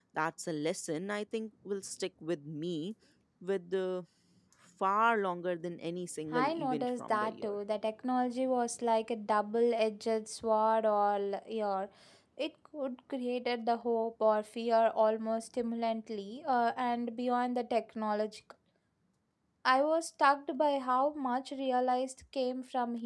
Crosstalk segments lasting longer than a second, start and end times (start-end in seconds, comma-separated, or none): 6.3-7.6